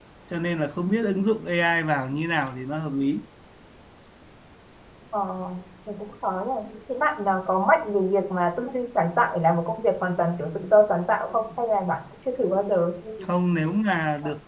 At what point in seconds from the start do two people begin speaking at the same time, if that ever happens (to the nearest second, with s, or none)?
none